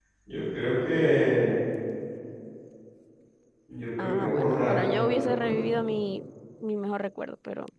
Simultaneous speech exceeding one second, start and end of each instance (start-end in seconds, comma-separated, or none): 4.0-5.7